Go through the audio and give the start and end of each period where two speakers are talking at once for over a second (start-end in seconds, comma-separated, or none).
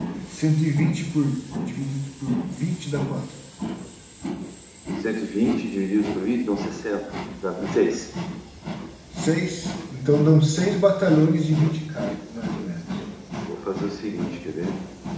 none